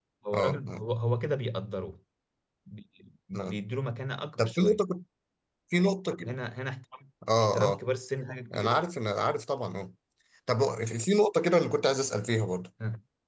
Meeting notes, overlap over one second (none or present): none